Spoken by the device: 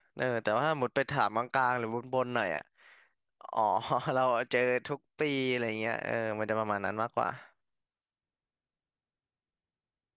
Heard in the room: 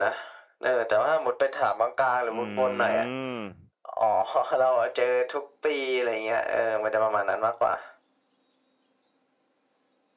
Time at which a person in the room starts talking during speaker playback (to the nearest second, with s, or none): 2 s